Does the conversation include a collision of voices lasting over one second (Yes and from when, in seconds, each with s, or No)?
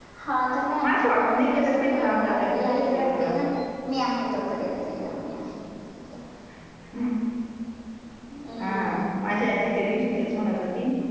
Yes, from 0.8 s